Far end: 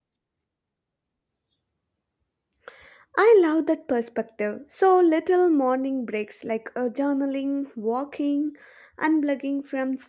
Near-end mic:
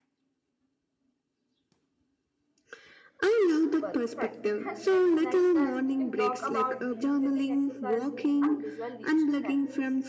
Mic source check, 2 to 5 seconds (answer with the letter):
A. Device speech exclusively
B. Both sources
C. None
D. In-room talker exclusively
B